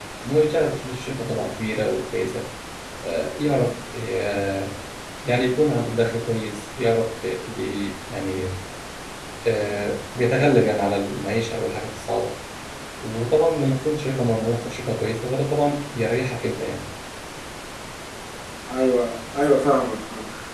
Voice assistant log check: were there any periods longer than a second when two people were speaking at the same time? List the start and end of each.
none

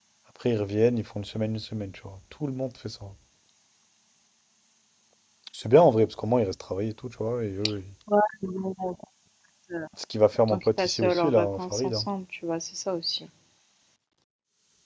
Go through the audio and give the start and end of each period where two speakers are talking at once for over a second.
10.5-12.1

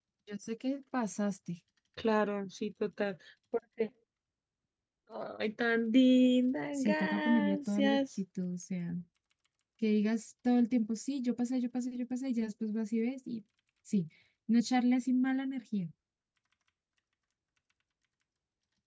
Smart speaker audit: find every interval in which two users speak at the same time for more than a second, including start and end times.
6.8-8.0

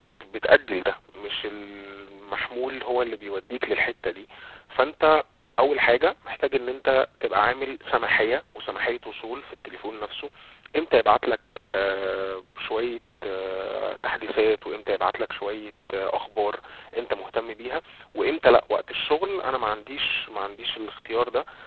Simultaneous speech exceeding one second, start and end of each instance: none

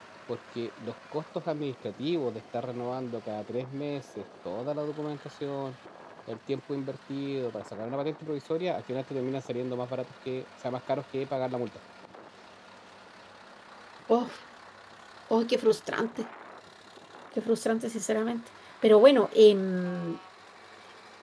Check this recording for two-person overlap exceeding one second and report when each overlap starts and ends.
none

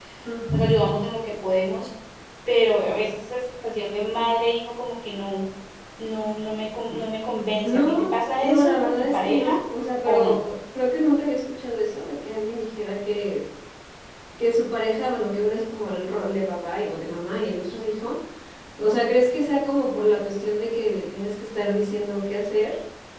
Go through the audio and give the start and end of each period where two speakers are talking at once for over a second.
7.6-9.6

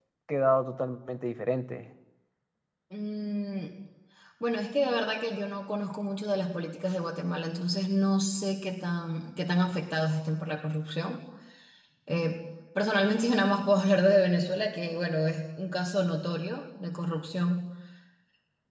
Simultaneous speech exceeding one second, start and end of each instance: none

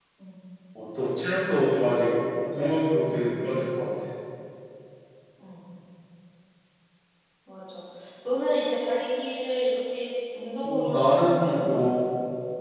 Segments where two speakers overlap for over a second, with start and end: 10.6-12.0

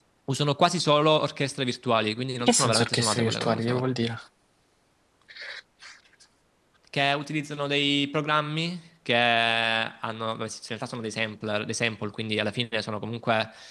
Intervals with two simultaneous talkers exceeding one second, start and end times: 2.4-3.9

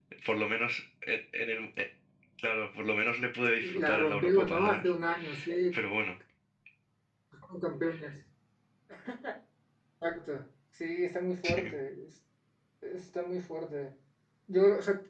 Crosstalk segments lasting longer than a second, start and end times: 3.6-4.9

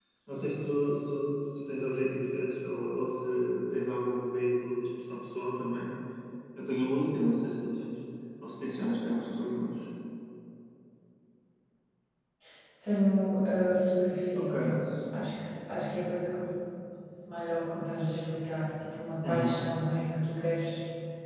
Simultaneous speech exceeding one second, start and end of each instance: none

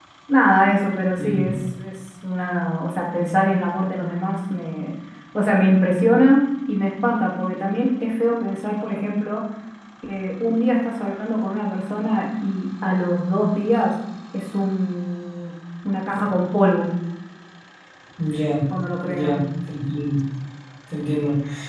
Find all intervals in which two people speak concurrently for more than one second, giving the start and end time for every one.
none

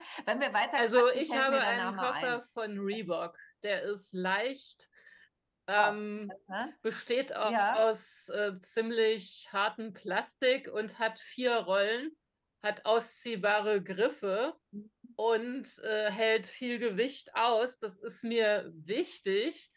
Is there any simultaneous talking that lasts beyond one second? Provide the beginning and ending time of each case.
0.8-2.4

